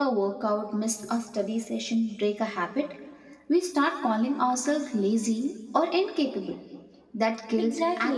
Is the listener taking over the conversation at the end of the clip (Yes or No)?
No